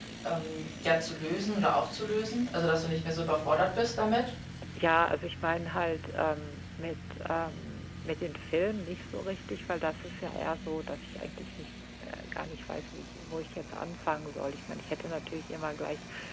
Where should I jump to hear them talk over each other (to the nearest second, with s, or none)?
none